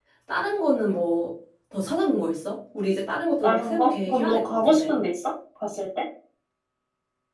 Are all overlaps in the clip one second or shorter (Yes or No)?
No